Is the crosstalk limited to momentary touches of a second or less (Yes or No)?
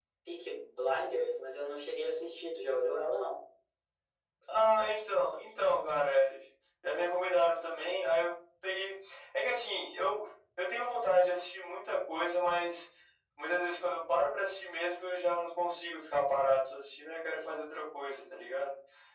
Yes